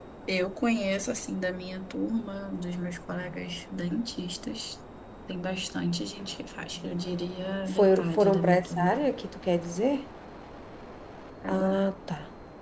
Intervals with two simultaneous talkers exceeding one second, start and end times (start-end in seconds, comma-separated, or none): 7.7-9.1